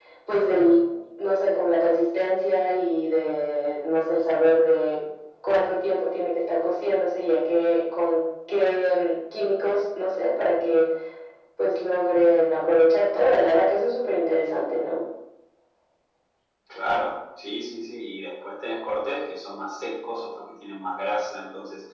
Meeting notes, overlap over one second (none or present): none